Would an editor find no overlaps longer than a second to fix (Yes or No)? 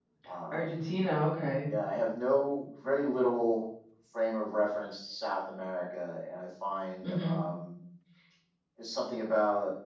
Yes